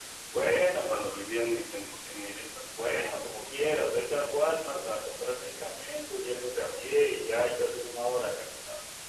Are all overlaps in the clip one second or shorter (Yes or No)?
Yes